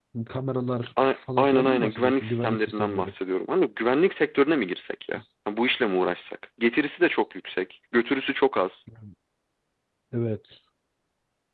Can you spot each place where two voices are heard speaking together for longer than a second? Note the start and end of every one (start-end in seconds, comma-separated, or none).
1.1-3.1